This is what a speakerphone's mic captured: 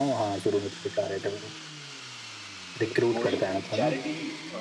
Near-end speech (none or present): present